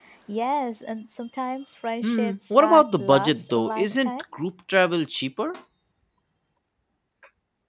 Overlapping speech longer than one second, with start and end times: 2.0-4.1

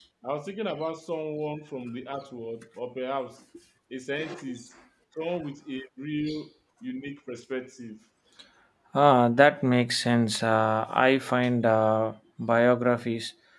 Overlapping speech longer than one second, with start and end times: none

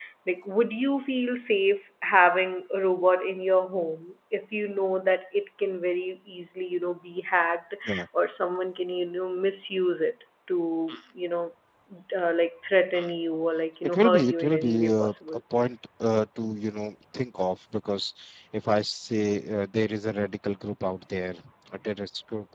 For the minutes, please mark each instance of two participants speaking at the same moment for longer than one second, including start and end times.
13.8-15.4

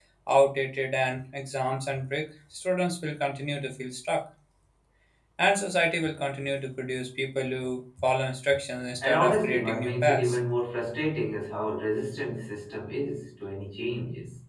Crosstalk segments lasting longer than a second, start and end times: 9.0-10.4

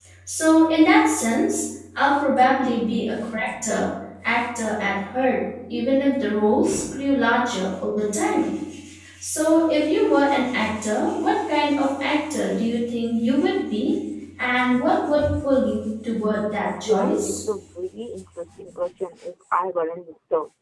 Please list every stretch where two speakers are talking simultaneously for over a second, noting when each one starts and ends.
none

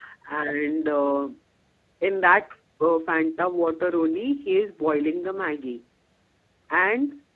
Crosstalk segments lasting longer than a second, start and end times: none

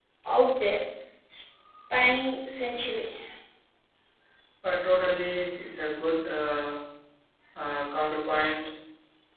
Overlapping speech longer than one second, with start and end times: none

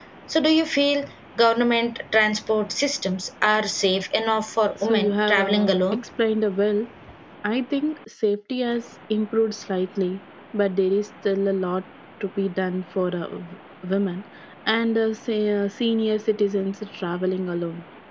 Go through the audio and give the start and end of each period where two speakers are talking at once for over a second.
4.8-6.0

